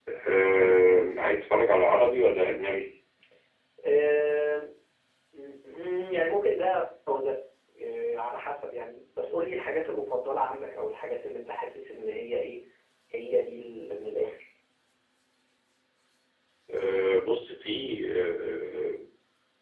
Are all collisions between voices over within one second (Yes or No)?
Yes